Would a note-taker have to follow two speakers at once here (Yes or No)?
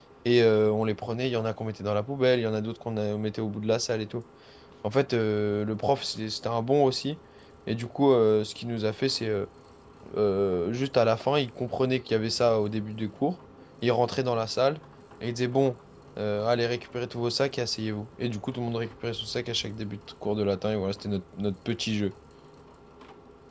No